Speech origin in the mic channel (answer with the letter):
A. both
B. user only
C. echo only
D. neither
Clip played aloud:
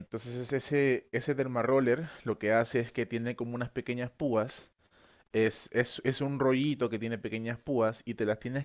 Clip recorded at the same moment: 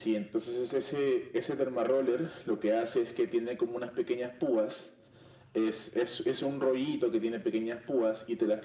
C